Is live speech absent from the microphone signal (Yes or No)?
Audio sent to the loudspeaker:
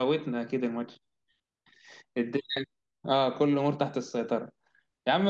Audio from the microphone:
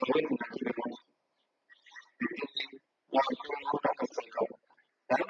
Yes